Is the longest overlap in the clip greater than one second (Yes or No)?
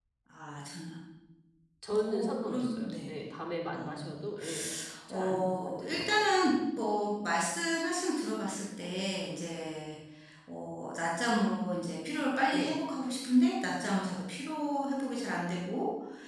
Yes